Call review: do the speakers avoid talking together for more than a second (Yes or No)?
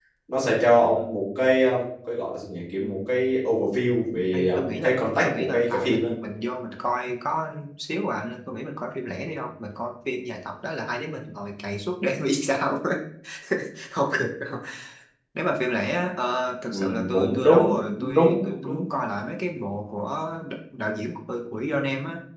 No